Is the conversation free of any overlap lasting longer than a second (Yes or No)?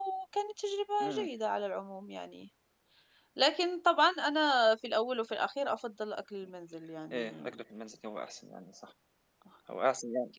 Yes